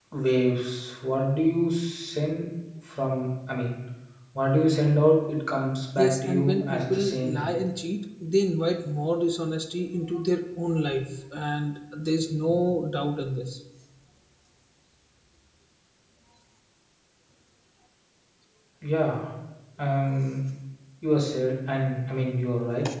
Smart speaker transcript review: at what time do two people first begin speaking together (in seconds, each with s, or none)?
6.0 s